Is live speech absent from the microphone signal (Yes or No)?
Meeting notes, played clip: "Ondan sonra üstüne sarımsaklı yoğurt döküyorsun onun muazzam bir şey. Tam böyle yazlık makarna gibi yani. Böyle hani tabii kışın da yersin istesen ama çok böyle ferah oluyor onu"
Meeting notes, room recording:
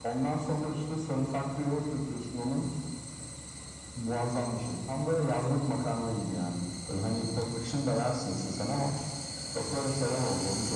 Yes